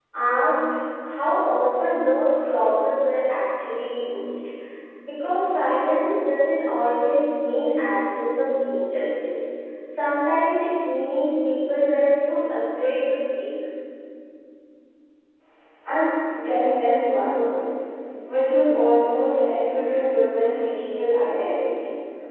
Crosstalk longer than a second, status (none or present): none